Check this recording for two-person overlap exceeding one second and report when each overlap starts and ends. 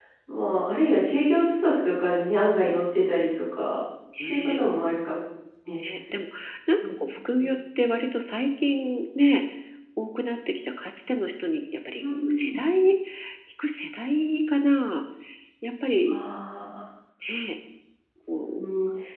none

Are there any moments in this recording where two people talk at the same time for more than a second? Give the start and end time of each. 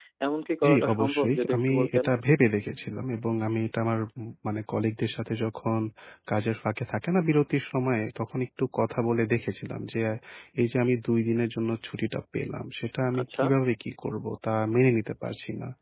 0.6-2.0

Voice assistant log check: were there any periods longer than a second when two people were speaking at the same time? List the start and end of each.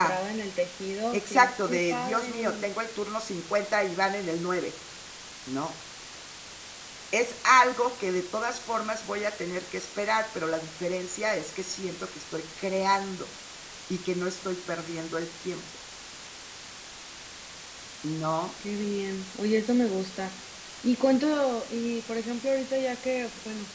1.1-2.7

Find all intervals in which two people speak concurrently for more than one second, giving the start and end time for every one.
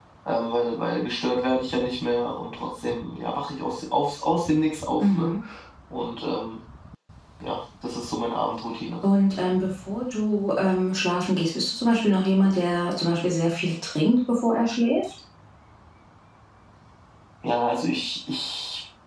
none

